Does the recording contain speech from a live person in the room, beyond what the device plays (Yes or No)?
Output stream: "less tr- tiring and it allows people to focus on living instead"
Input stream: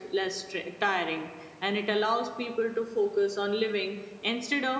No